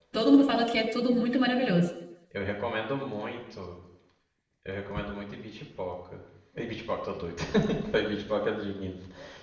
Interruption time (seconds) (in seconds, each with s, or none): none